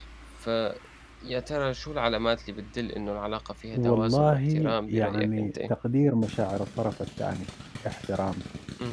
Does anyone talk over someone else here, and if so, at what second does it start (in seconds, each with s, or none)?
3.7 s